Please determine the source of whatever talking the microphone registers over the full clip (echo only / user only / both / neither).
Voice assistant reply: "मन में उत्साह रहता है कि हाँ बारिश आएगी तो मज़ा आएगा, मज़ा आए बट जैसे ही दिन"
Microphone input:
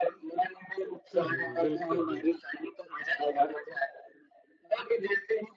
both